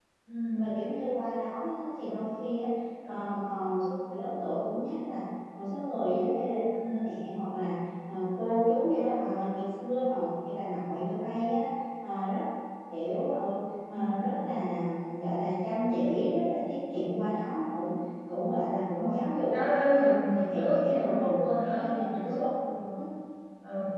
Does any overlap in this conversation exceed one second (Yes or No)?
Yes